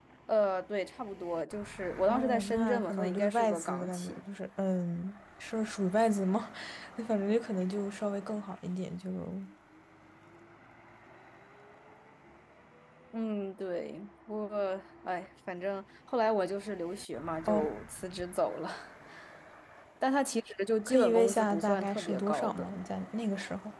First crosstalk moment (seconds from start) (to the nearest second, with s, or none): 2 s